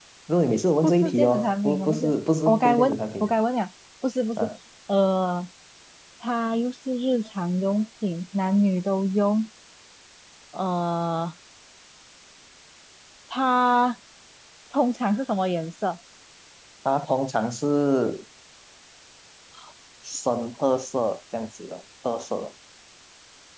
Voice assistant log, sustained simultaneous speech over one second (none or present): present